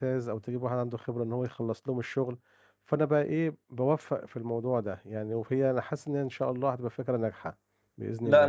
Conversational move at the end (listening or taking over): taking over